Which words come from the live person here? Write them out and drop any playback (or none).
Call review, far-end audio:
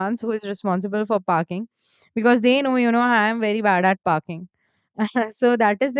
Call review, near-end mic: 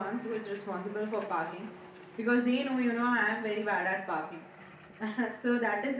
none